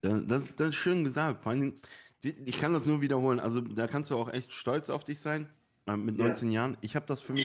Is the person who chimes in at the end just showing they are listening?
Yes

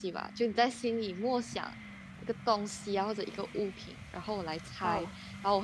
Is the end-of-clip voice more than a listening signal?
No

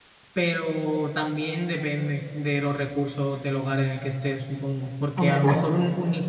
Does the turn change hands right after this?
No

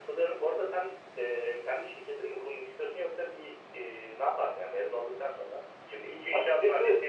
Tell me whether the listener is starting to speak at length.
No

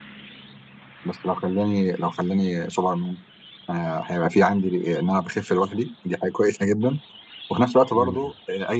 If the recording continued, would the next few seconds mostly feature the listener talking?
No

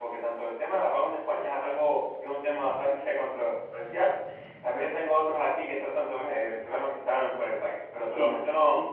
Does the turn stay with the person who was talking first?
No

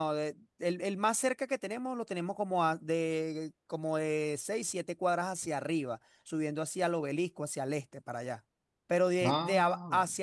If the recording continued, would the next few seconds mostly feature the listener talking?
No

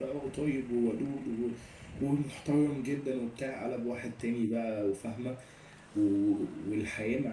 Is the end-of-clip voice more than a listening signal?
No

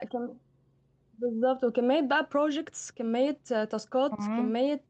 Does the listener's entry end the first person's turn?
No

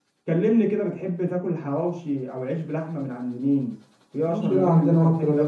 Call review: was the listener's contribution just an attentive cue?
No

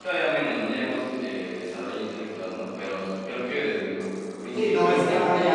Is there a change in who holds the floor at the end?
Yes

